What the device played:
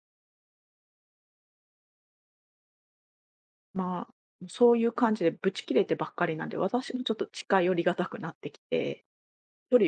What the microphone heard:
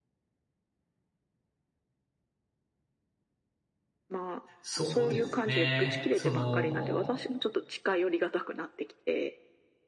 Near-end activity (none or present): present